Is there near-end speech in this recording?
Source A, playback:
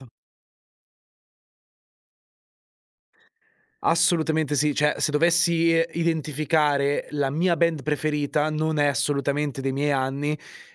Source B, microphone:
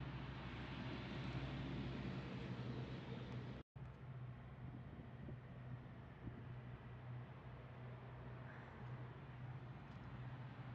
No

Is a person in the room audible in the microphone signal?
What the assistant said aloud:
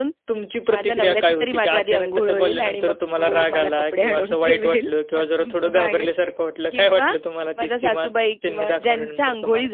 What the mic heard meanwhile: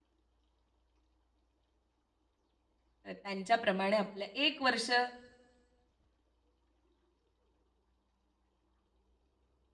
Yes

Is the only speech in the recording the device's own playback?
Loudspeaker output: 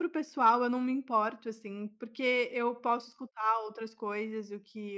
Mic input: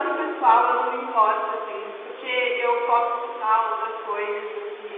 Yes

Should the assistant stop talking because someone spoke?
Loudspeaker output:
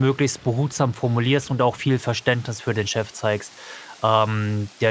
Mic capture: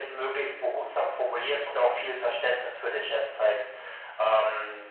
No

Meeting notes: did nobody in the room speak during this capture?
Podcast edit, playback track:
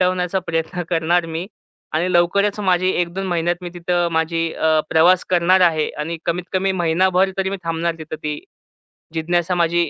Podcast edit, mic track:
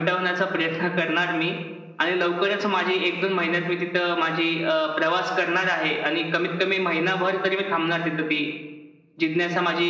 Yes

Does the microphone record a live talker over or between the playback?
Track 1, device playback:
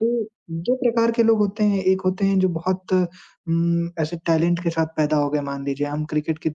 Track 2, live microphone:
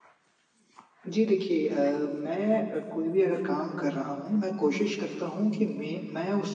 Yes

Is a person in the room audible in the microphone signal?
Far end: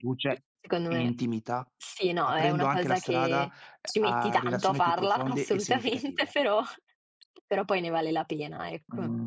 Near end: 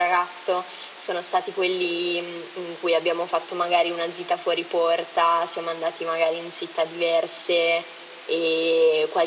Yes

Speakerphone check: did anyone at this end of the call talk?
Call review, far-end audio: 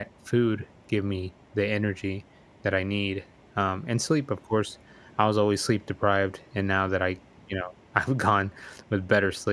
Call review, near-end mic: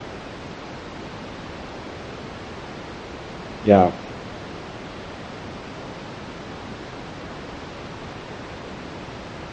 Yes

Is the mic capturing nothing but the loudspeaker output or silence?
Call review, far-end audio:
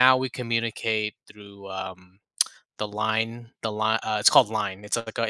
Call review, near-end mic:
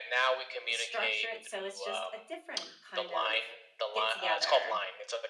No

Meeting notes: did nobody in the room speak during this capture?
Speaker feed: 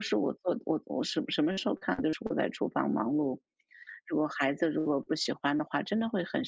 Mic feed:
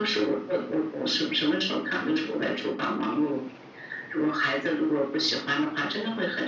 Yes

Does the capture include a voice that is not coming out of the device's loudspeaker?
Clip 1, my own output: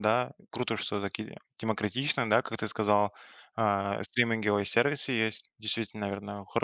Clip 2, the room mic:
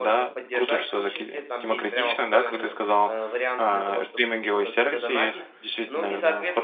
Yes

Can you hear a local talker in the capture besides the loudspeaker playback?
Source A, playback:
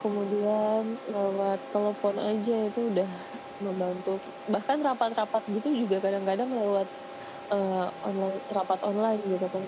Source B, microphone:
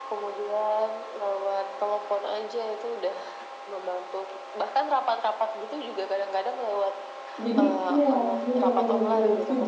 Yes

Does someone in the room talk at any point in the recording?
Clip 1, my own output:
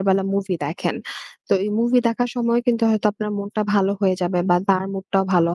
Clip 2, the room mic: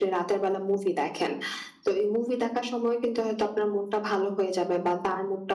No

